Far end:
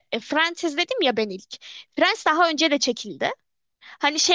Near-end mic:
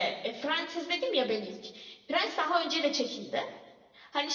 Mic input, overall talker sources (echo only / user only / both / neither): echo only